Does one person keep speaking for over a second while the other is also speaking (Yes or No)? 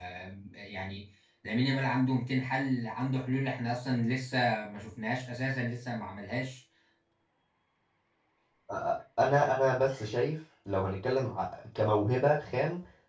No